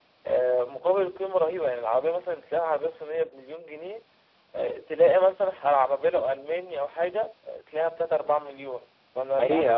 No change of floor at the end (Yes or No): No